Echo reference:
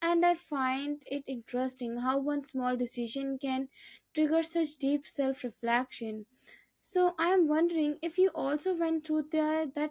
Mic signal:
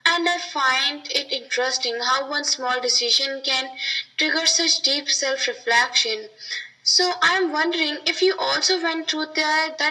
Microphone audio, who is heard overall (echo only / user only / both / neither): echo only